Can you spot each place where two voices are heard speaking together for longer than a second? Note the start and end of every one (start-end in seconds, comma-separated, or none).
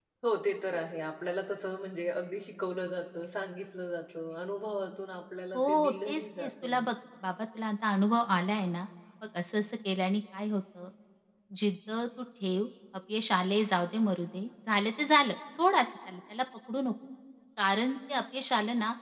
5.6-6.9